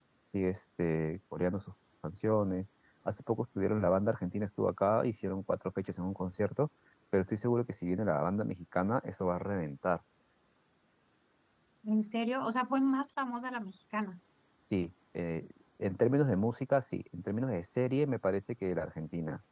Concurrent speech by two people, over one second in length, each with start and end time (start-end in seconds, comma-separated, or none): none